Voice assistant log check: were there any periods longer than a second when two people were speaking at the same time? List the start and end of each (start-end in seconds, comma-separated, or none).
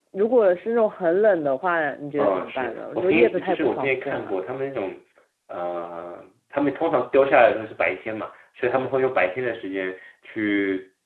2.2-4.3